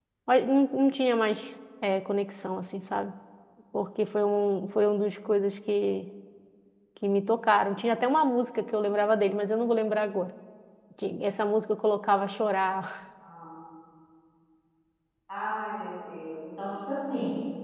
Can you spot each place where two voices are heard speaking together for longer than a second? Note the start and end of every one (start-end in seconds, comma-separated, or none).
none